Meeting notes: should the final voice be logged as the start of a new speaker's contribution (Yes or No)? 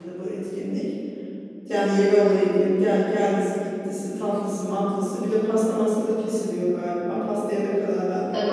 Yes